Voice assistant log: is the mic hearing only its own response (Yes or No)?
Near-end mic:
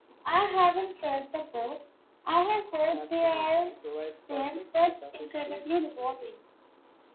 No